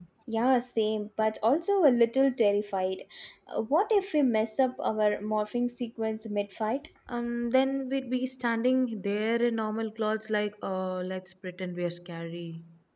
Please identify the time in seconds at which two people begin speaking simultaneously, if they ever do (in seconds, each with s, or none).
none